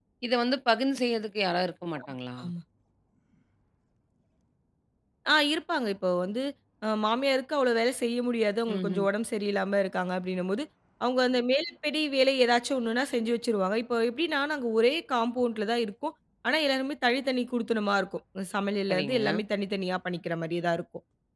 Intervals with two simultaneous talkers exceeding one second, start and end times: none

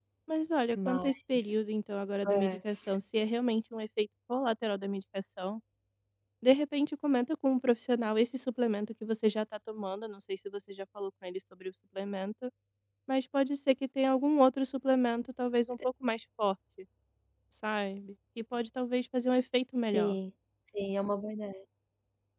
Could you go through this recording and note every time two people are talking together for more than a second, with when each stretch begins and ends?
none

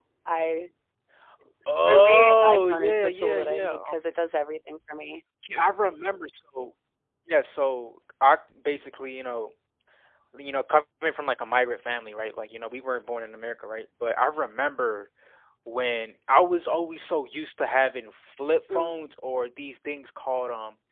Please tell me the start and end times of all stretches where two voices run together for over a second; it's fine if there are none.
1.9-3.9

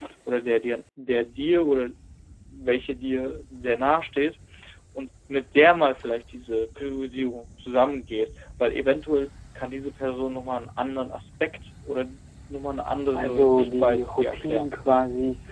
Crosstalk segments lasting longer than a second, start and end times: 13.1-14.7

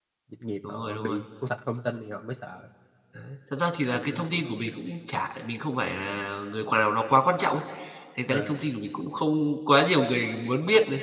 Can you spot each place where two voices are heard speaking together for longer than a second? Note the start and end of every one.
none

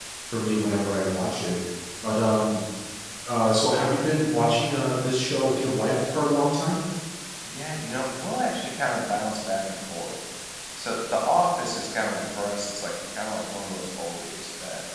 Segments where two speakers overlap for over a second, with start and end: none

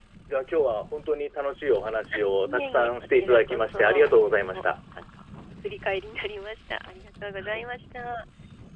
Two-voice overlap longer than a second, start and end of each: 2.1-4.6

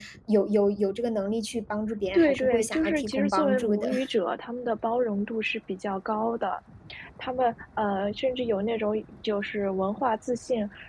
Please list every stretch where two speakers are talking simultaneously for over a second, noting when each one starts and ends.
2.1-3.9

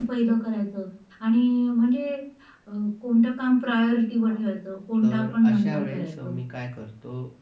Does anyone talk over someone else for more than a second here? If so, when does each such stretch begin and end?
5.0-6.3

